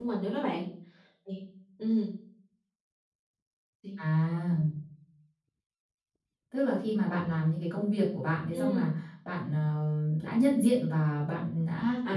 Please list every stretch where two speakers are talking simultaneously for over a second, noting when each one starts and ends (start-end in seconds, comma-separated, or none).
none